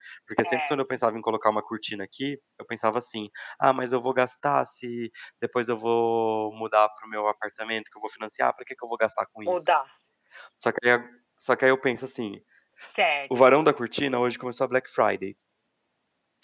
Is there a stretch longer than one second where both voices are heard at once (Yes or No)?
No